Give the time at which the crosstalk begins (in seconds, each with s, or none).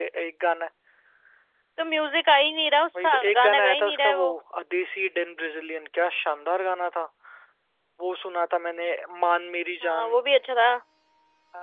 3.0 s